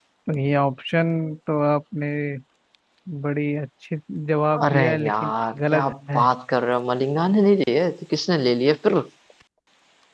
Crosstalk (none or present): present